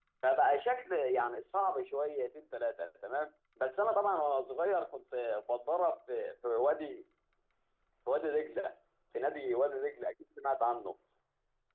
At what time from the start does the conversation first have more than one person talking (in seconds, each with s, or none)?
none